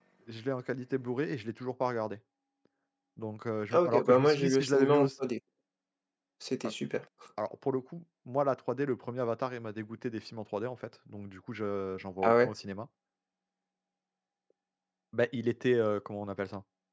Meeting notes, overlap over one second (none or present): present